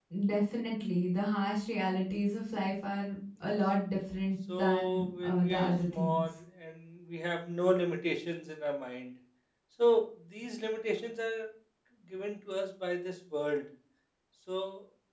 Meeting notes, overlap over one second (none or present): present